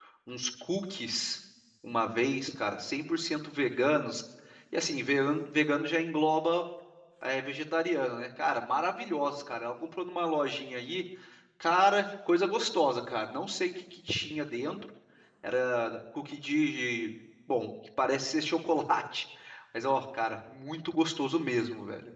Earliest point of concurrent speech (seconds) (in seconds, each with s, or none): none